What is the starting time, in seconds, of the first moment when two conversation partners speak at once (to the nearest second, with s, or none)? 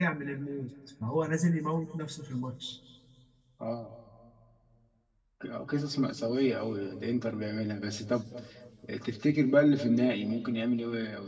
none